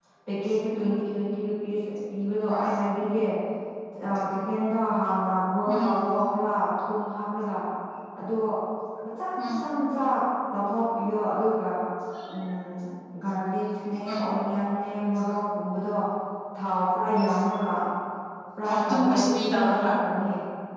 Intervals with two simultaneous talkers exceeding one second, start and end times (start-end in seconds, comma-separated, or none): 18.7-19.9